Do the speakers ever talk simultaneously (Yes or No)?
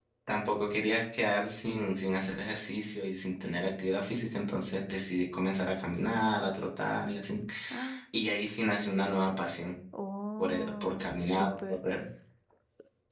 Yes